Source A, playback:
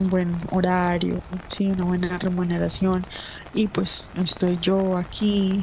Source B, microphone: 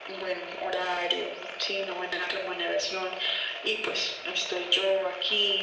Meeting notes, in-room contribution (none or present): none